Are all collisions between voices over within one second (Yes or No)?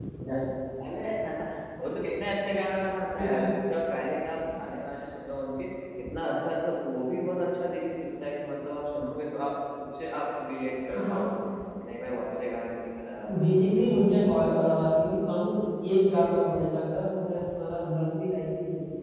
Yes